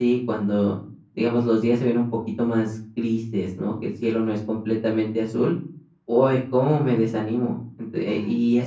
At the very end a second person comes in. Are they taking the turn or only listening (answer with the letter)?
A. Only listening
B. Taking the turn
A